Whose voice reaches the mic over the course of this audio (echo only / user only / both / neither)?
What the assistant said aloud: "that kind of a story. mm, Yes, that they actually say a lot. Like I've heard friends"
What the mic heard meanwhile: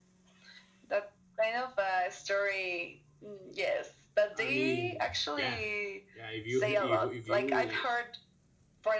both